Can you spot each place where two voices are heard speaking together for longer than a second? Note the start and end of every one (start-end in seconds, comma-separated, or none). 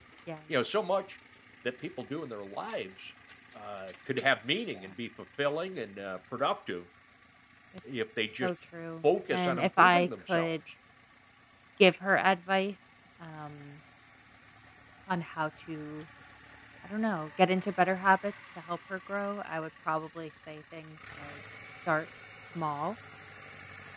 9.3-10.6